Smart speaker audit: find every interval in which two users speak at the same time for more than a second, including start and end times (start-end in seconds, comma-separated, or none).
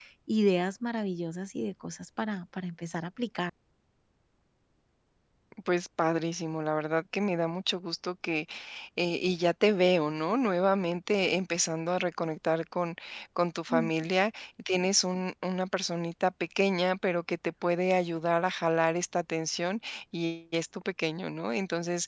none